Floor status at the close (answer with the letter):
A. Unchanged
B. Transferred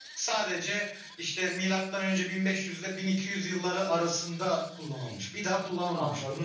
A